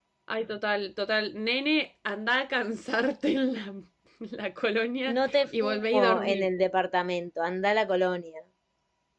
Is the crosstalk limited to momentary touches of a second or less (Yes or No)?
No